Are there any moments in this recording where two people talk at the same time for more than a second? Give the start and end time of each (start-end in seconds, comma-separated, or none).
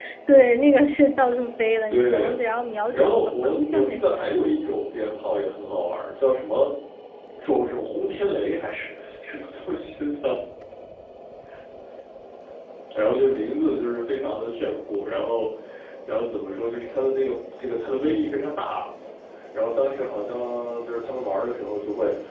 2.9-4.2